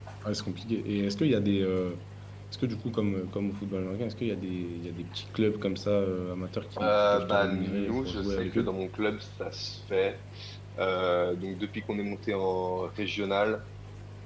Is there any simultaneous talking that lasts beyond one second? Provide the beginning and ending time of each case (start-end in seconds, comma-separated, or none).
6.8-8.8